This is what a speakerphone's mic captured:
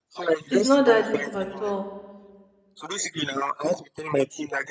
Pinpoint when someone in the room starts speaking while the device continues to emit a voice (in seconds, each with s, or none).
0.5 s